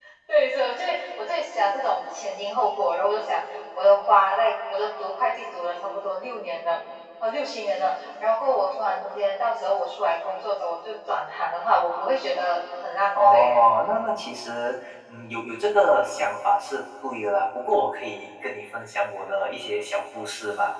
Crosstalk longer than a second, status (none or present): none